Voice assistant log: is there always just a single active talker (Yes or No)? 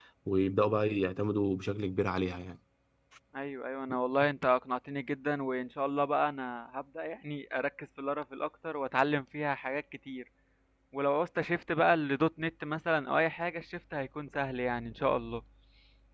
Yes